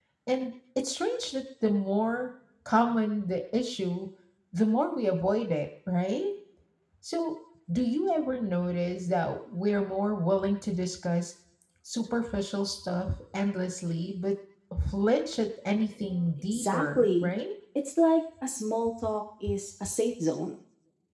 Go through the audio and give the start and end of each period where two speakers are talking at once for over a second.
16.0-17.3

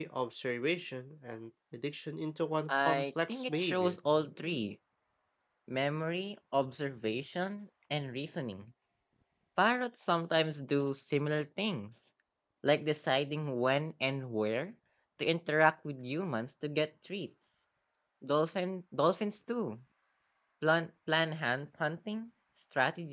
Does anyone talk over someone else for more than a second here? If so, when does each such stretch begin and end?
2.7-4.0

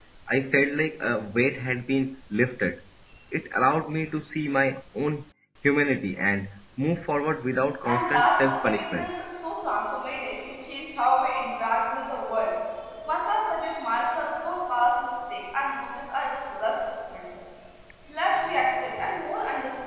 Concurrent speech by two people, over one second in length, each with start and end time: 7.9-9.1

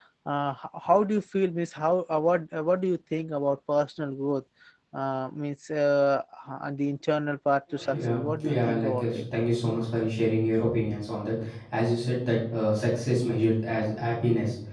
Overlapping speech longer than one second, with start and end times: 7.9-9.2

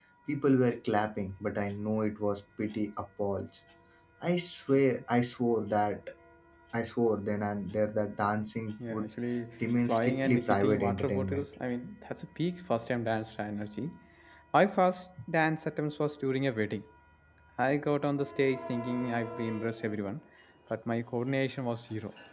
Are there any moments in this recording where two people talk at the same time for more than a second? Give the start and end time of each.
9.9-11.5

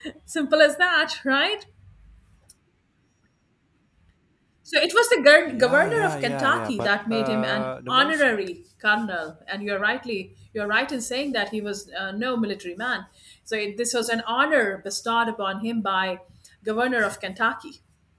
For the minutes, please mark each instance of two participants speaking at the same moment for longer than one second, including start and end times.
5.5-8.2

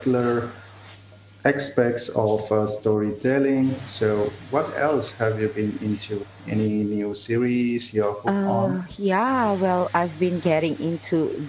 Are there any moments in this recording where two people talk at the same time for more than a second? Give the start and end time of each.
none

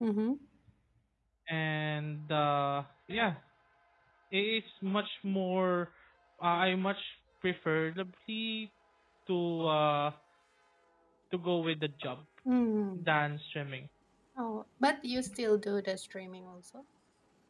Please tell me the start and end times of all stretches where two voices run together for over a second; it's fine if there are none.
none

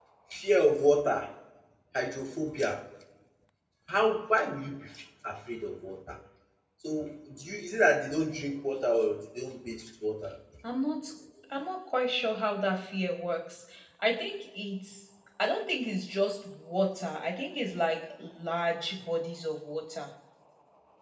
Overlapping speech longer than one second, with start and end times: none

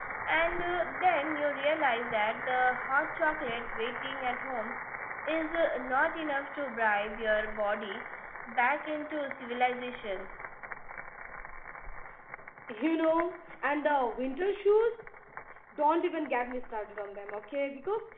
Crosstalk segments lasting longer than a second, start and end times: none

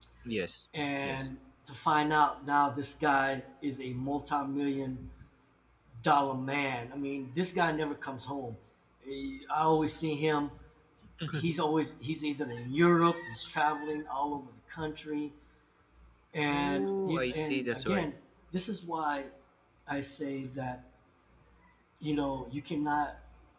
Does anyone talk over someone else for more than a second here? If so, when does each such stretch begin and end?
16.5-18.1

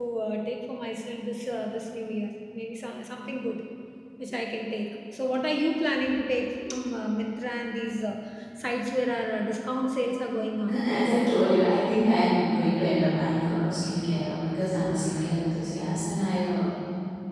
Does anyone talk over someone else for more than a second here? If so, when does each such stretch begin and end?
none

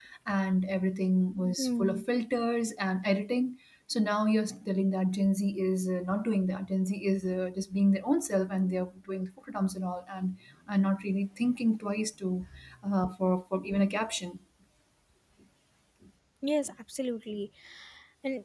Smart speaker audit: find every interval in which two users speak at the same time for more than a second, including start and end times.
none

